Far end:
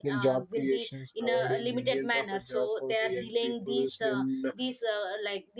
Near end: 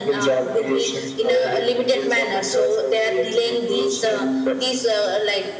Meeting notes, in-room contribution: none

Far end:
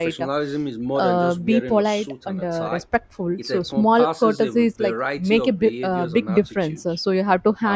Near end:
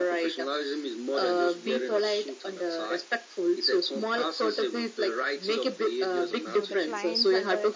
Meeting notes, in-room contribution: present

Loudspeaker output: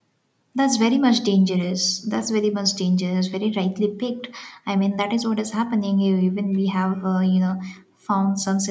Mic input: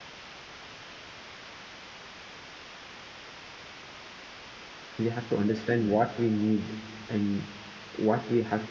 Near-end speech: present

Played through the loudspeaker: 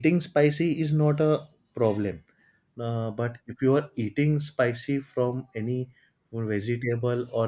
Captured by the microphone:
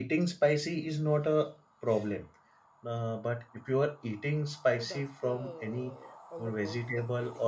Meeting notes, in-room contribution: present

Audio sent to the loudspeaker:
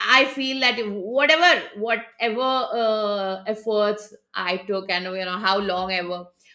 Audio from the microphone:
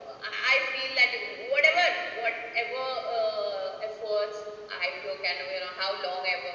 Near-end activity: none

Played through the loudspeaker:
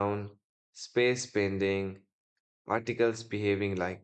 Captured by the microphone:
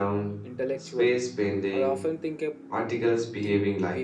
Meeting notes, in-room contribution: present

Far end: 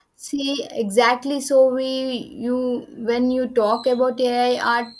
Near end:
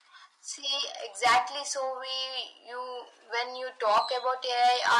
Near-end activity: none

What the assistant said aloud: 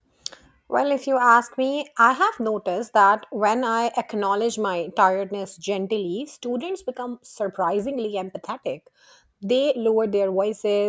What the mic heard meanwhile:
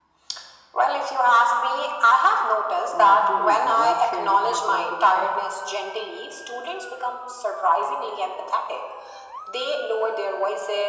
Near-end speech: present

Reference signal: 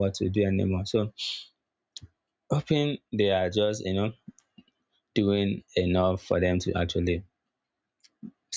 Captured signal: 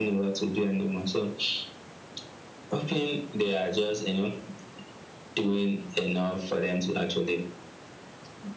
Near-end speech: none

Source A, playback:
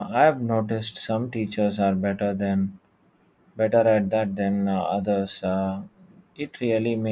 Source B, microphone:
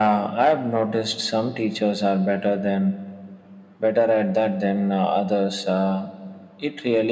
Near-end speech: none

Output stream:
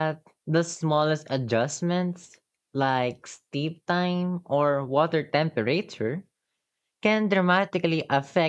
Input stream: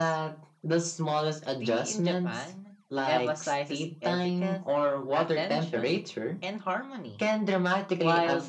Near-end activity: present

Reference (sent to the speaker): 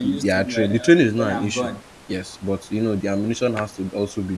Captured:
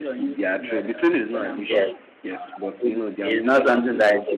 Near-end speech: present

